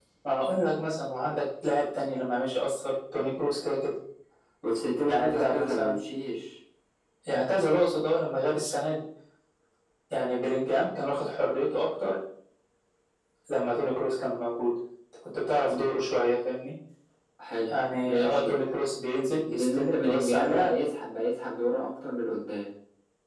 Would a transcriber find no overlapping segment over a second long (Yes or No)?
No